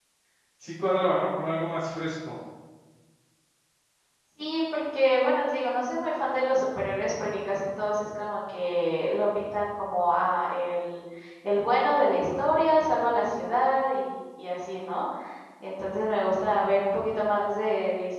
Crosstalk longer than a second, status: none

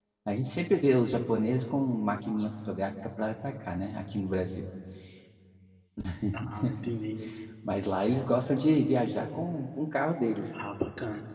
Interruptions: none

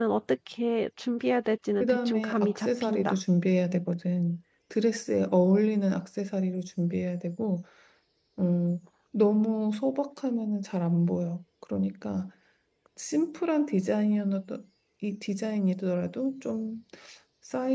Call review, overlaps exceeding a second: present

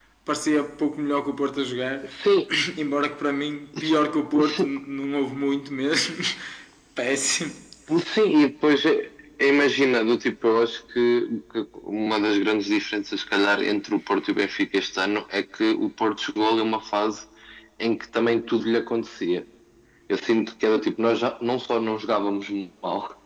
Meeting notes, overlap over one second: none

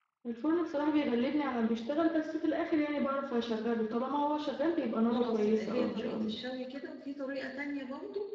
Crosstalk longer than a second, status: present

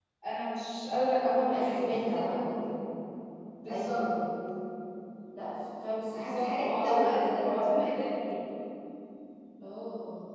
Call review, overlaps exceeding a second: present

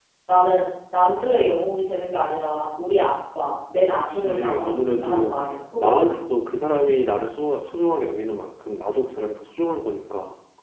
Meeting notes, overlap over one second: present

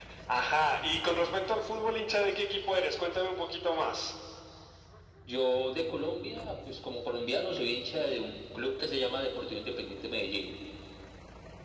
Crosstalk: none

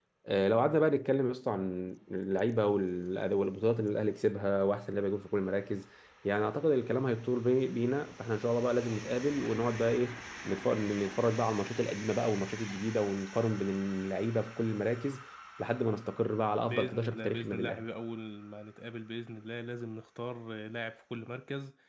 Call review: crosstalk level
present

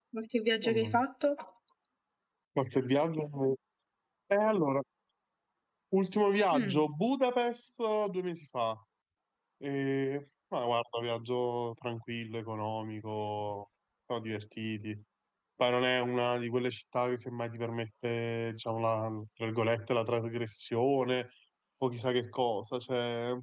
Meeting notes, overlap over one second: none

